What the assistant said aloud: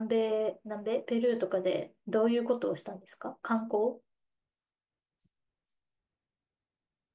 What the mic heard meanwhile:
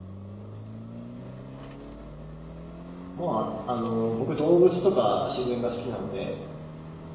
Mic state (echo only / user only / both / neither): user only